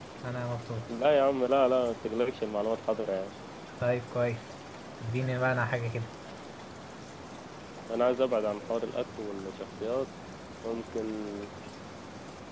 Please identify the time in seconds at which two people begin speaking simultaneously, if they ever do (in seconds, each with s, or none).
none